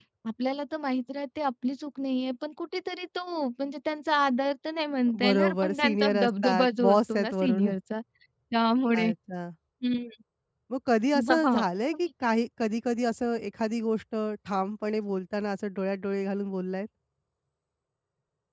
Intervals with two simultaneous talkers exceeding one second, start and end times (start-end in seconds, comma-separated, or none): 5.2-7.7